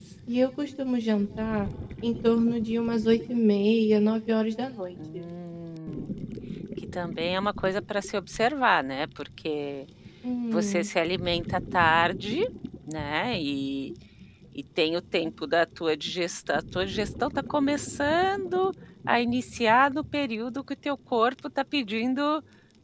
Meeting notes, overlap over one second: none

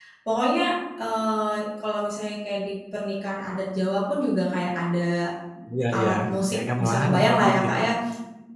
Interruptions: present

